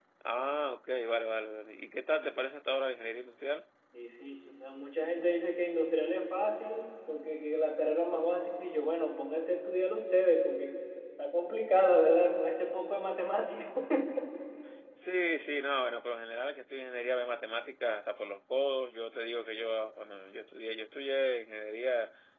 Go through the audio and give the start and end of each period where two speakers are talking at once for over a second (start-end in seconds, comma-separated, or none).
none